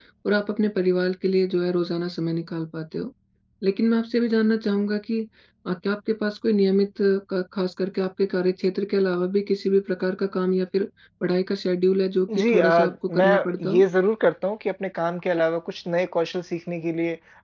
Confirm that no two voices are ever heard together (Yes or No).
No